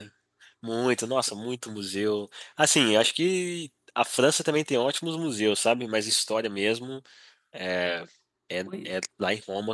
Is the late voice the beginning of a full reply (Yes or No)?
No